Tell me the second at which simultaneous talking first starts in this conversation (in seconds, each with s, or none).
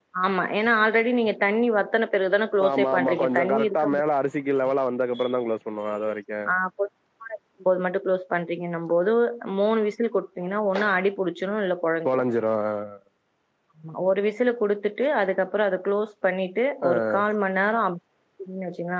2.7 s